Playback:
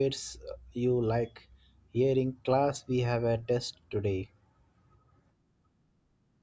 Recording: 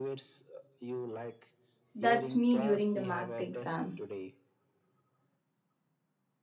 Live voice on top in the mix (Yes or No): Yes